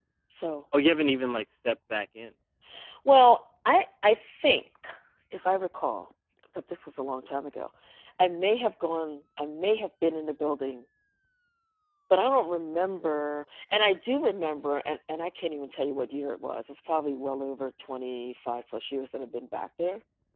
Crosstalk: none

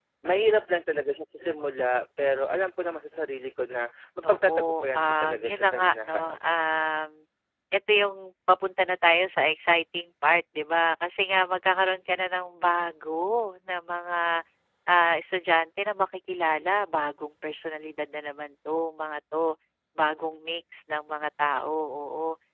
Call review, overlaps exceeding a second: present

